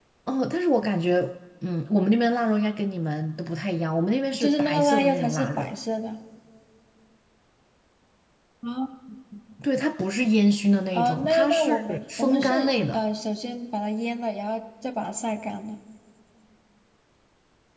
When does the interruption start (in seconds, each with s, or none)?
4.4 s